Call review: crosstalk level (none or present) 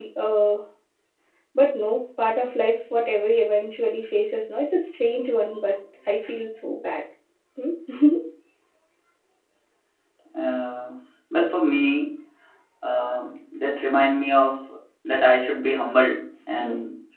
none